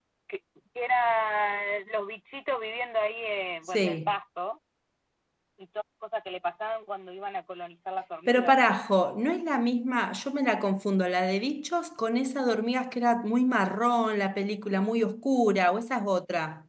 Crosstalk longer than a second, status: none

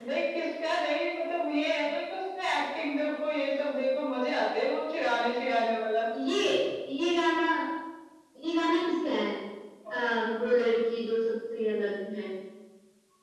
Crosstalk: none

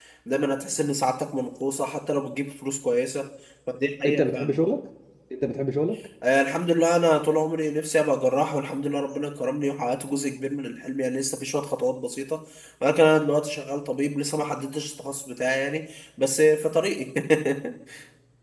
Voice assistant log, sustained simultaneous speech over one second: none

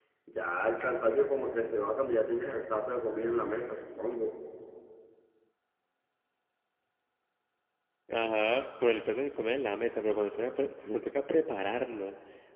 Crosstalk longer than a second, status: none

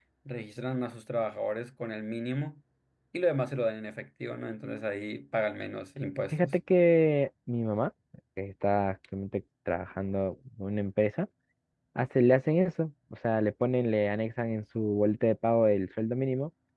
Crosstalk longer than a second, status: none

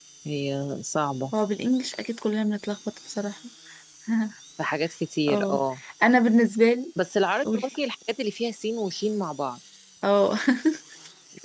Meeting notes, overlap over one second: none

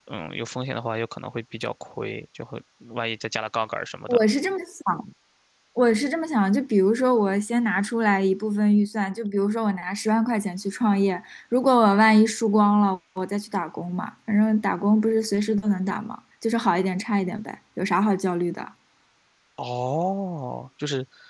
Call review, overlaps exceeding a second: none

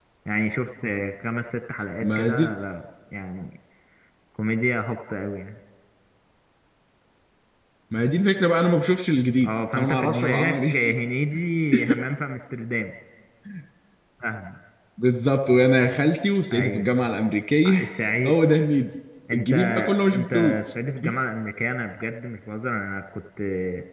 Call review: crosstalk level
present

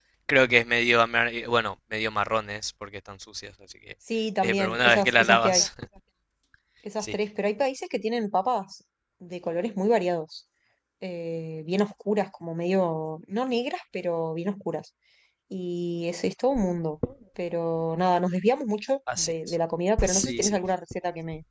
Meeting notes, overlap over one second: present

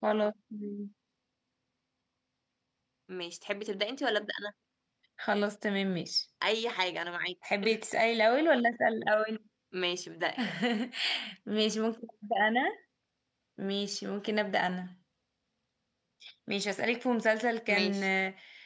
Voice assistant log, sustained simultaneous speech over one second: none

